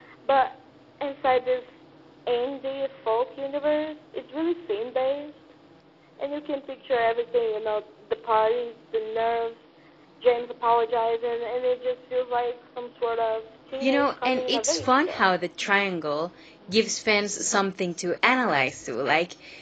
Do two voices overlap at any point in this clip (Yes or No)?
Yes